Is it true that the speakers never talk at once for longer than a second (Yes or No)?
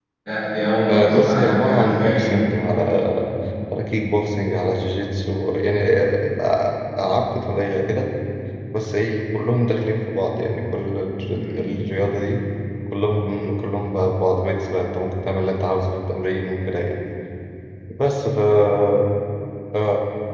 No